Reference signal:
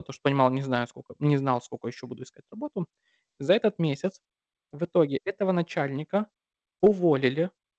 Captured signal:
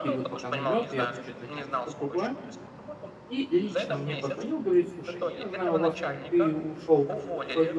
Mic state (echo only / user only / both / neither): both